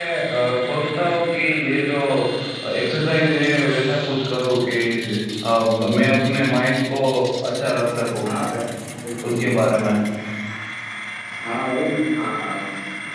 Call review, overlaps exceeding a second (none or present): none